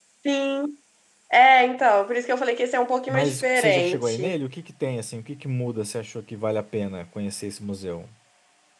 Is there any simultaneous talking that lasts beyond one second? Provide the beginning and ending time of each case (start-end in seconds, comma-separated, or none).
3.1-4.3